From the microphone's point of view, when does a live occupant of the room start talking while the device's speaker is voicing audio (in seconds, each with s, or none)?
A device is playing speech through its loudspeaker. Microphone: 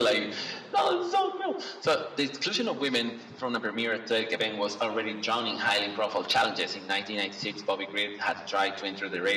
none